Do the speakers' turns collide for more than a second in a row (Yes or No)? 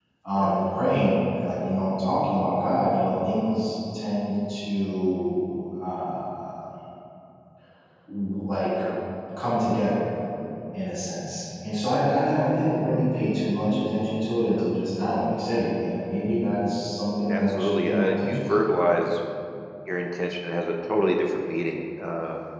Yes